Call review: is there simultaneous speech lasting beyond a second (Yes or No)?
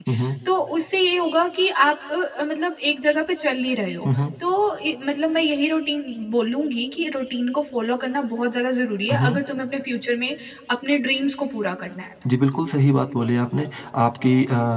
No